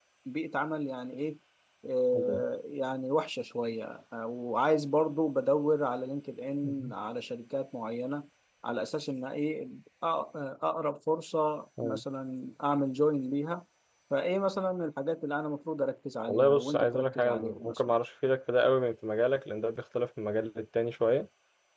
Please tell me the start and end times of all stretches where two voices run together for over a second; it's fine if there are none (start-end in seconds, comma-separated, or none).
16.3-17.9